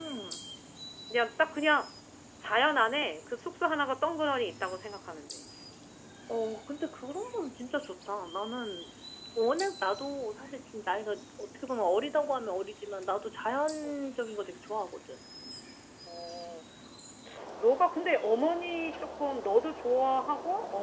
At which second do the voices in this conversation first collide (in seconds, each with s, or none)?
none